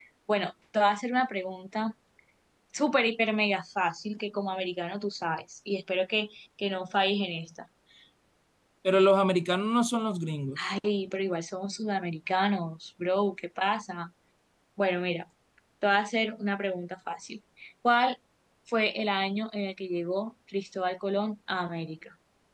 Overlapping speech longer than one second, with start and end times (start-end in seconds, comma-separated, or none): none